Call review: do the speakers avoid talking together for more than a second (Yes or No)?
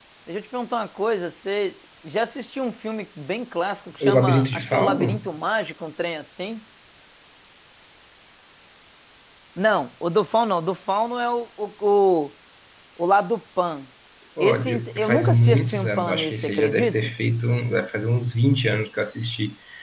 No